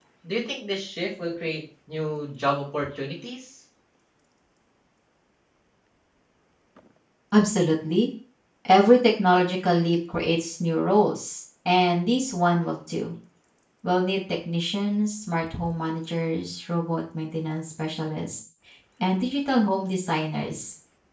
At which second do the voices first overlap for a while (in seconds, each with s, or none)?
none